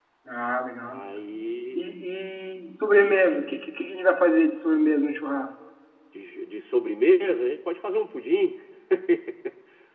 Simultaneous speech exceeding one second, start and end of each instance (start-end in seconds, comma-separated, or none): none